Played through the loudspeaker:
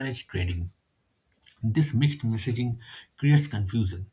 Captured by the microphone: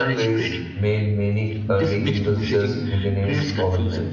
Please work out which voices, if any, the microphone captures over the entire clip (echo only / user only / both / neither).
both